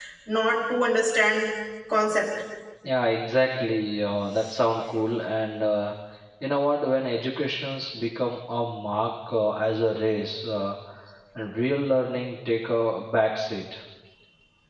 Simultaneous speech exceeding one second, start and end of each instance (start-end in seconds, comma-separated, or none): none